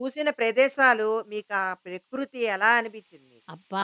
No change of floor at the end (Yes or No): No